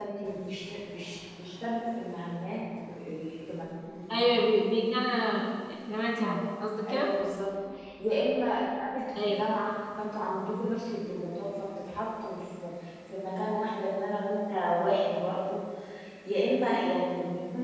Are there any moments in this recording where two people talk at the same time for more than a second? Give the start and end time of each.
none

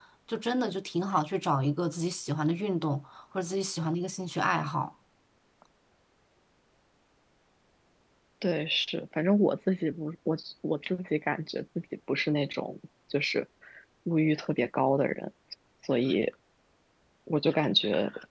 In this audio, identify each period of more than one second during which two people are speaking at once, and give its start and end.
none

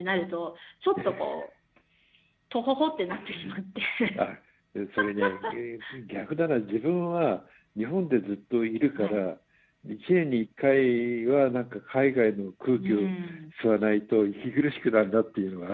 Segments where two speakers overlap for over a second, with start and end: none

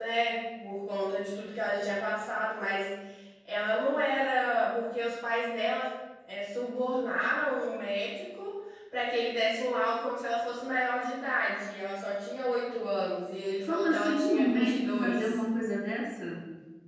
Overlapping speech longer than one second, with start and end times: 13.7-15.4

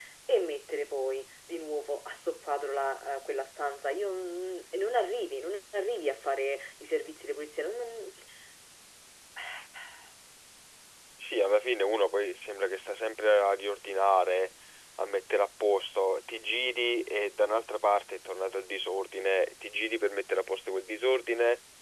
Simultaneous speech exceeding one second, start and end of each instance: none

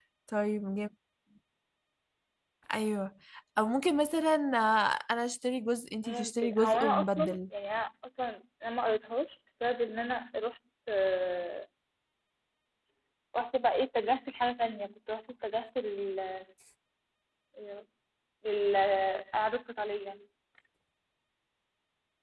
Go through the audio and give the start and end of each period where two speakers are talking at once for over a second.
6.0-7.4

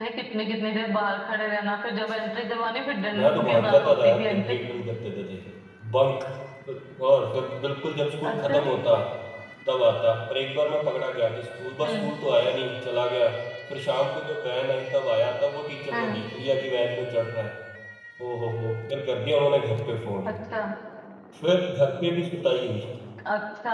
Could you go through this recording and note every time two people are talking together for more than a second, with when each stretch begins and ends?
3.1-4.5

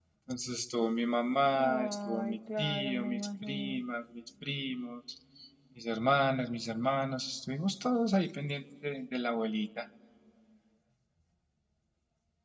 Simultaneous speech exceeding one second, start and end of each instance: 1.6-3.8

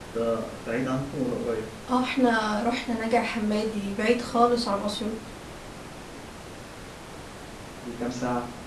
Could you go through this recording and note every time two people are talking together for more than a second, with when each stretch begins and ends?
none

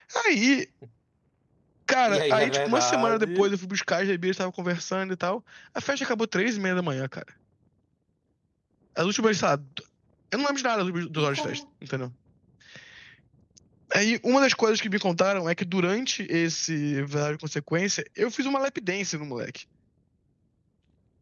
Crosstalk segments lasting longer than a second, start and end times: 2.0-3.5

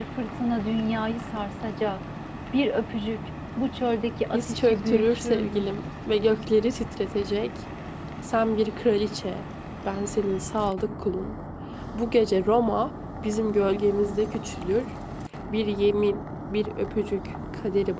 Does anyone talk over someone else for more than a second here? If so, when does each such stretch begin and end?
4.3-5.6

